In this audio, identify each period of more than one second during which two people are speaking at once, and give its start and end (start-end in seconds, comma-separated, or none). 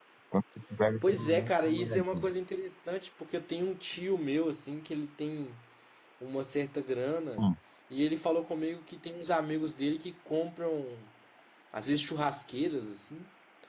1.0-2.2